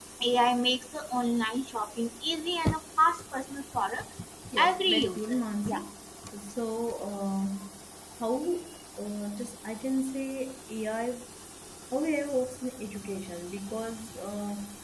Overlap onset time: 4.6 s

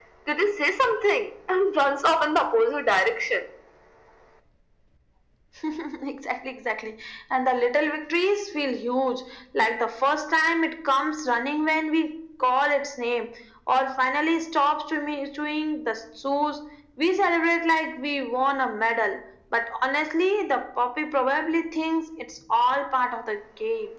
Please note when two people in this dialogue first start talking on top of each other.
none

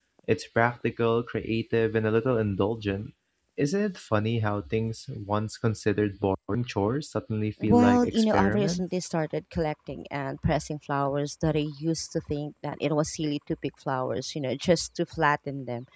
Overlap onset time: 7.6 s

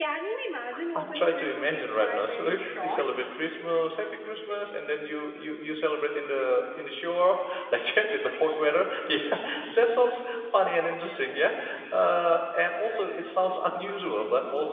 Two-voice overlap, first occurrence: 1.0 s

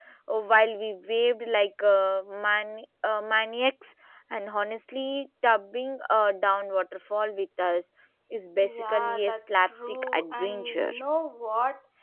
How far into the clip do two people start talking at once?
8.6 s

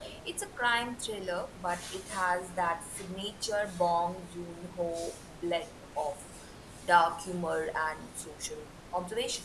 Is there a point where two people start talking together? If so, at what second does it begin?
none

